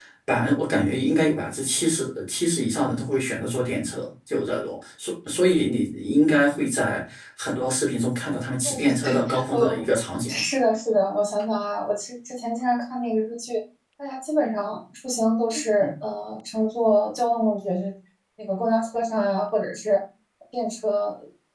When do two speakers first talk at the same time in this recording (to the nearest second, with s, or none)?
9 s